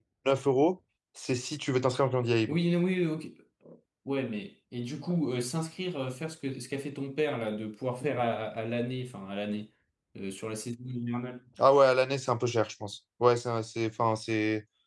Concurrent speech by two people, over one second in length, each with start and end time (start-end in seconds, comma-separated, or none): none